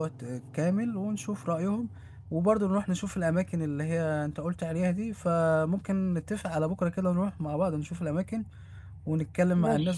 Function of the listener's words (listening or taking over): listening